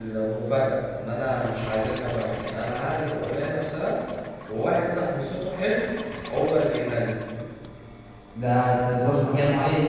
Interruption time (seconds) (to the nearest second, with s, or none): none